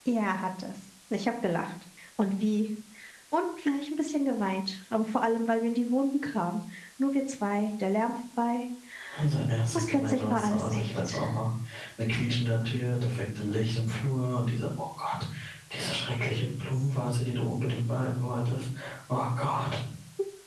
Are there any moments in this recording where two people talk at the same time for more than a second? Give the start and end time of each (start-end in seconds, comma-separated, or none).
9.8-11.2